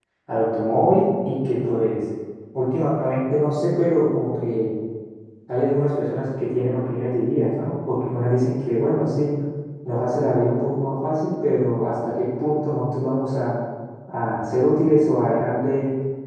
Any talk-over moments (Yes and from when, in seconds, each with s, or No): No